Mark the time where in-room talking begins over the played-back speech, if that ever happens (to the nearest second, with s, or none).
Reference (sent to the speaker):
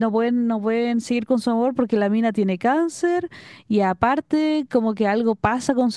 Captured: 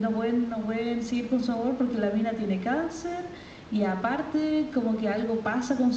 none